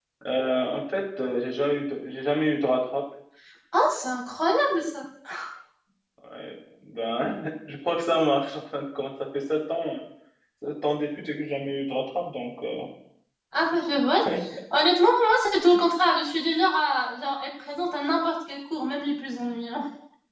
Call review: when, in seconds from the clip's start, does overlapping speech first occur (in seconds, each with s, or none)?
none